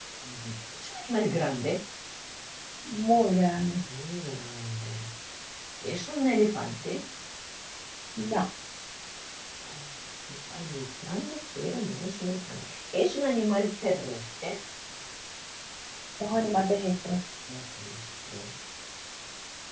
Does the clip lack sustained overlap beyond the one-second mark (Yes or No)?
Yes